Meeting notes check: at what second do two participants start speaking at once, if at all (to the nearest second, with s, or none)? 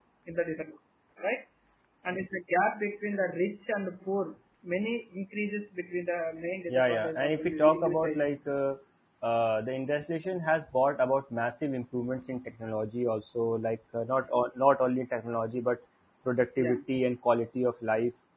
7 s